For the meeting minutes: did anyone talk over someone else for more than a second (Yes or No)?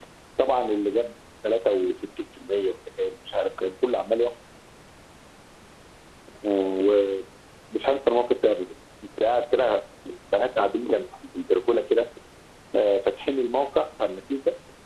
No